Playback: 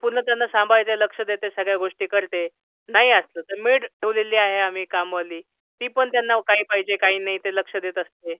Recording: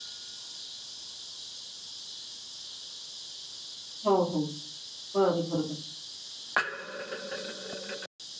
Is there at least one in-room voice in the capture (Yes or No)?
Yes